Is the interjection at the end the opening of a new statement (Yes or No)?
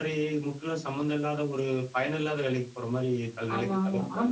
Yes